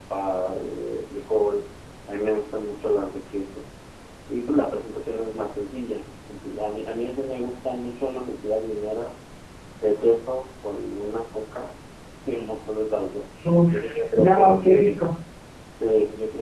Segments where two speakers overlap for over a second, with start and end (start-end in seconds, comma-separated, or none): 13.7-15.0